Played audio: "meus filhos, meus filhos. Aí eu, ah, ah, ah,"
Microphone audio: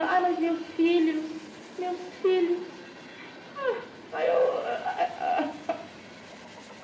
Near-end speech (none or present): none